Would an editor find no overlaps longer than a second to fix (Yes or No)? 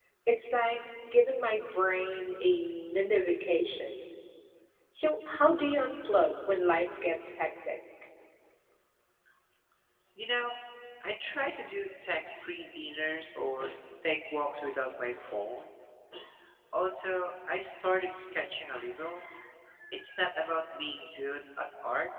Yes